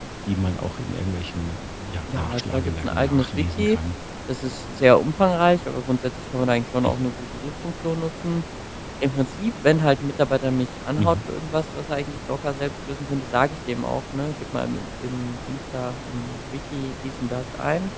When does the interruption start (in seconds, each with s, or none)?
2.1 s